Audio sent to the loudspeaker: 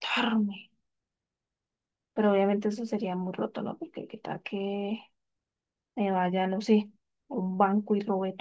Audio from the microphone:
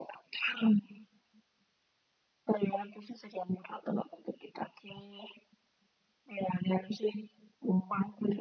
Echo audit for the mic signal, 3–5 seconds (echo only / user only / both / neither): echo only